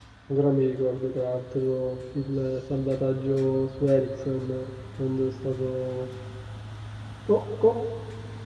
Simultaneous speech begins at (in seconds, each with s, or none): none